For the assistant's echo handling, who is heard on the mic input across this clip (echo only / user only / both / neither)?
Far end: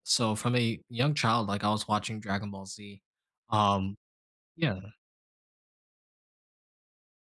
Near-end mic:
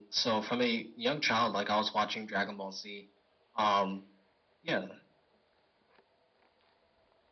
echo only